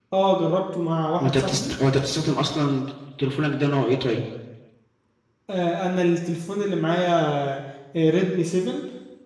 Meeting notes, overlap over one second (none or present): none